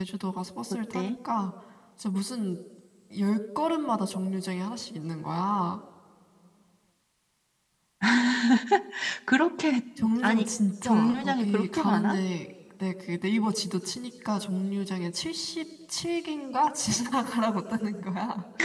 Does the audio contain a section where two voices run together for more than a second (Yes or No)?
Yes